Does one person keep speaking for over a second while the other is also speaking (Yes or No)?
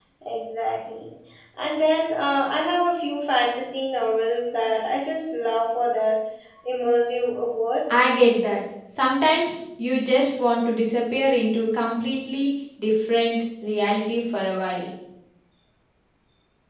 No